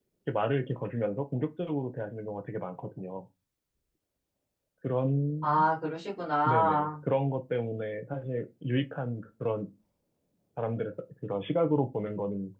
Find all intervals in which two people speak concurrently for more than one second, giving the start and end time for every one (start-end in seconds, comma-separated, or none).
none